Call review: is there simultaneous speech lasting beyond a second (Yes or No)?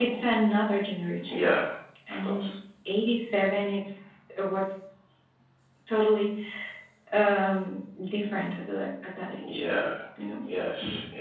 No